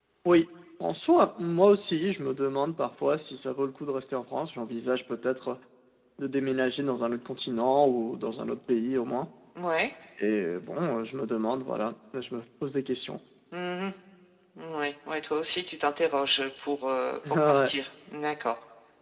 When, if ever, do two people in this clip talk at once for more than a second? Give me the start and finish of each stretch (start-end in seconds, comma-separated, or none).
none